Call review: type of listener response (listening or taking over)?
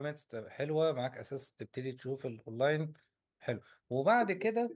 listening